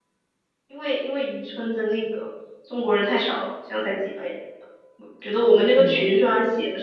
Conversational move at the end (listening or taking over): listening